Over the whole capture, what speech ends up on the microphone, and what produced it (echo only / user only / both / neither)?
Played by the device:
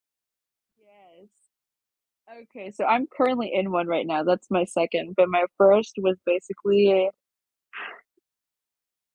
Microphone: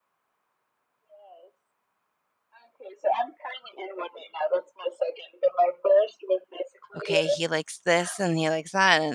both